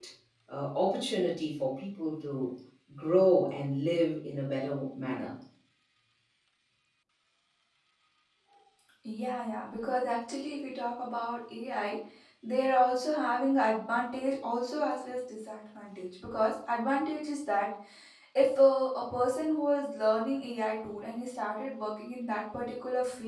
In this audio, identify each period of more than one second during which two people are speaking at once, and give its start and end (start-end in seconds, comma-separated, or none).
none